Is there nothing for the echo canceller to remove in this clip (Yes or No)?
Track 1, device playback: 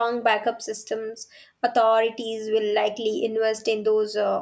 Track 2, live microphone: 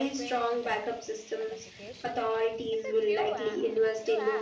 No